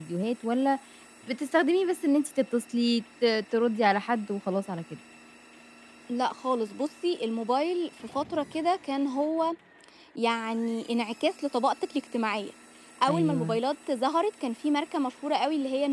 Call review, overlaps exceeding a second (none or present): none